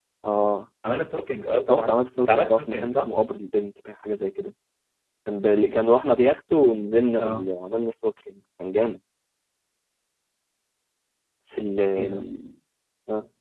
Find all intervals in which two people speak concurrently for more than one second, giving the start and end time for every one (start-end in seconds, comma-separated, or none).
1.7-3.1